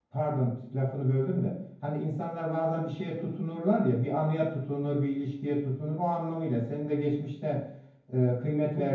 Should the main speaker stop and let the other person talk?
No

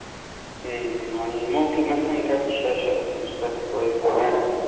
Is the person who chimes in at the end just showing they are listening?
No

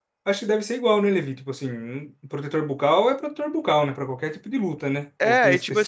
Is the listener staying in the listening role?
No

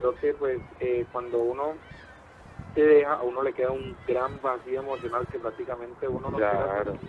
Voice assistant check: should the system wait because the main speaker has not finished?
Yes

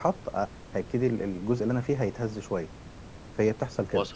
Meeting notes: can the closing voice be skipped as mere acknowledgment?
Yes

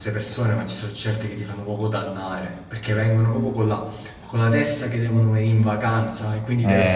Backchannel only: No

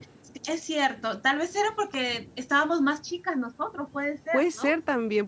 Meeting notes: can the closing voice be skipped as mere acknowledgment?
No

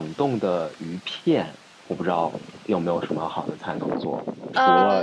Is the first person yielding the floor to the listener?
No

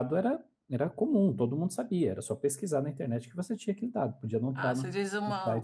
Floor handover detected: Yes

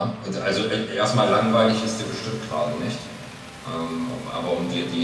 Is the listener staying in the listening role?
Yes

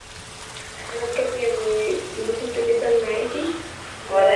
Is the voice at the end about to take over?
No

